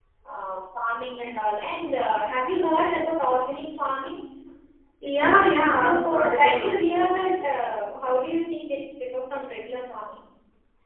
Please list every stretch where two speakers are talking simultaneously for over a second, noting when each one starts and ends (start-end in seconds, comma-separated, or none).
5.8-7.3